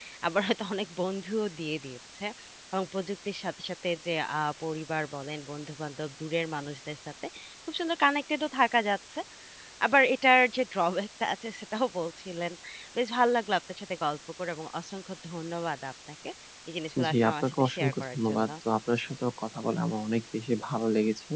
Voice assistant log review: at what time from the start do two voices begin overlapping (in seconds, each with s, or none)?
17.1 s